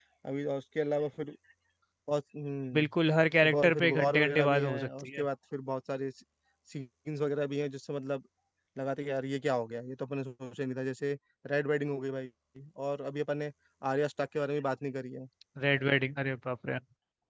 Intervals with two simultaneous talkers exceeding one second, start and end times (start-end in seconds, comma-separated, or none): 3.4-5.2